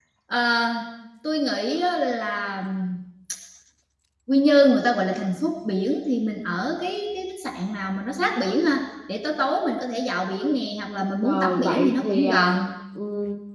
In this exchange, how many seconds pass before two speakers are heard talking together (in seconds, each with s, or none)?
11.2 s